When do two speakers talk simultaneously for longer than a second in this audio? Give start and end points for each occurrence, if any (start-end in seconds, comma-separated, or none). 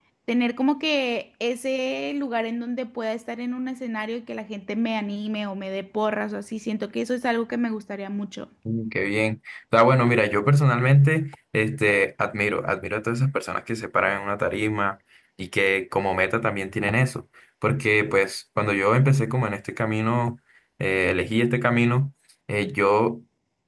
none